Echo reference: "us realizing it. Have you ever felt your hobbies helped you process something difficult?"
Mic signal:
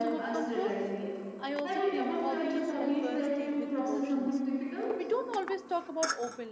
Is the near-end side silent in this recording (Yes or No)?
No